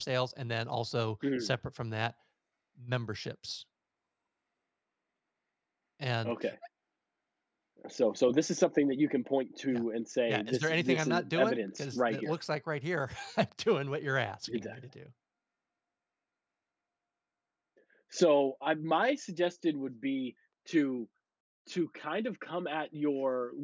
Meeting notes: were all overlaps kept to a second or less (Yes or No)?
No